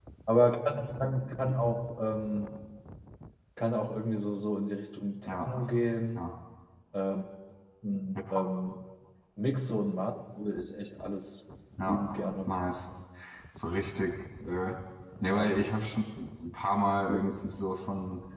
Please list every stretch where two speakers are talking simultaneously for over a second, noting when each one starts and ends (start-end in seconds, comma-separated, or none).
none